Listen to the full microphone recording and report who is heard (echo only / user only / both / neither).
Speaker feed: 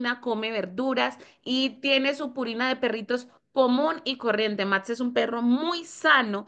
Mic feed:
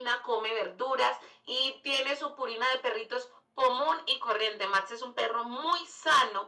echo only